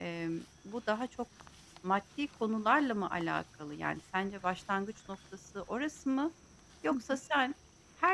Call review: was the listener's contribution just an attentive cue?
Yes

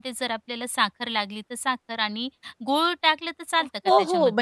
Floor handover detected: Yes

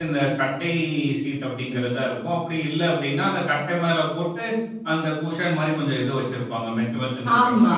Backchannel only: No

